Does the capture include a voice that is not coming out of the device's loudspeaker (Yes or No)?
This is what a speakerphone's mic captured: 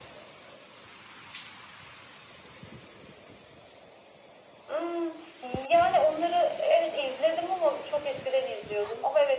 No